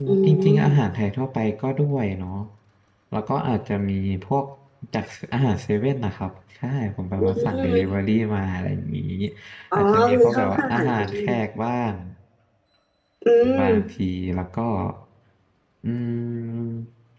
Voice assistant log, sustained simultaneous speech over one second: present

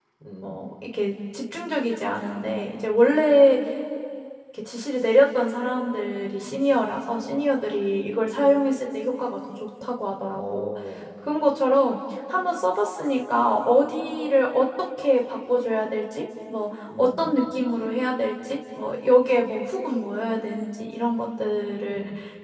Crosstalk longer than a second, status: none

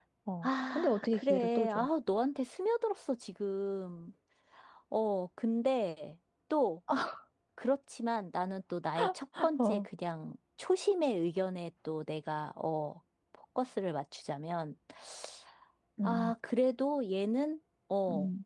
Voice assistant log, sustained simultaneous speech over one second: present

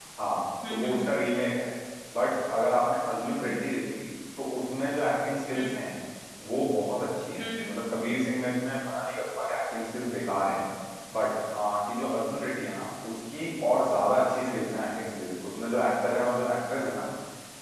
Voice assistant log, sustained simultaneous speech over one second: none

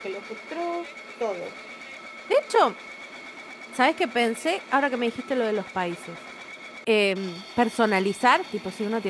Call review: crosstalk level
none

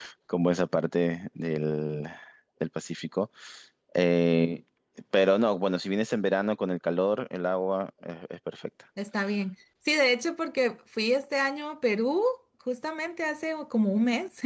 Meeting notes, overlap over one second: none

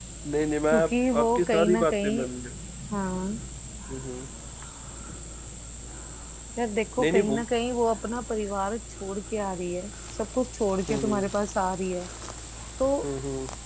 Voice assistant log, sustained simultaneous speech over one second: present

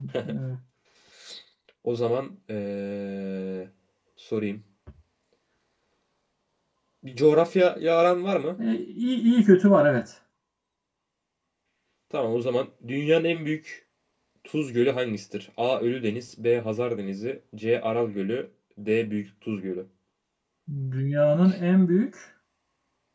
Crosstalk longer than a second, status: none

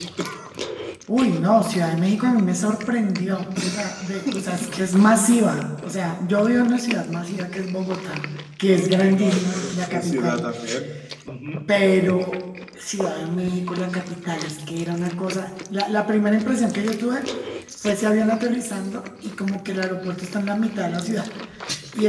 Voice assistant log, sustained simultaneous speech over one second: present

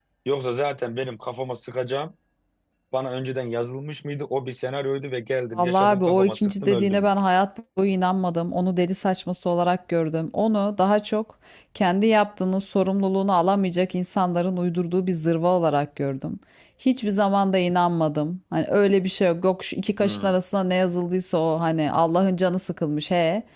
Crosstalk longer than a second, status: present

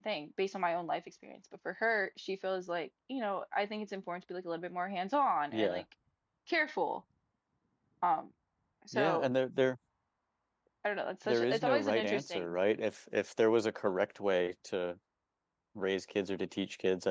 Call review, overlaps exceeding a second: present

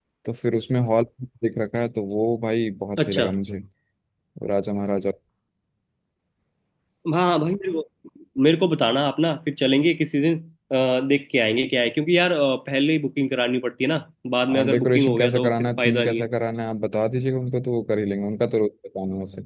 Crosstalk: present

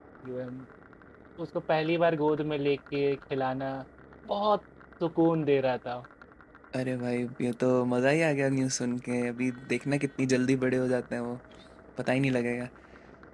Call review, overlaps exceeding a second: none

